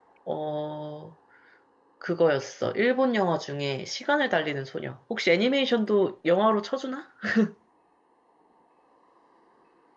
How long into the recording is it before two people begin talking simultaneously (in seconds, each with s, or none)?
none